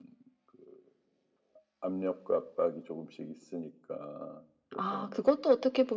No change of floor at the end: No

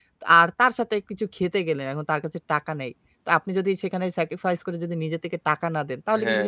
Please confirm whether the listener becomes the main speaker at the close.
Yes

